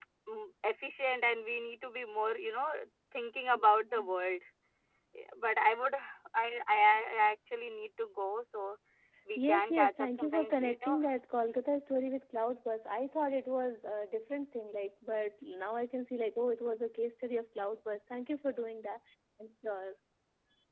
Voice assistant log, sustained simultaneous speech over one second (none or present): present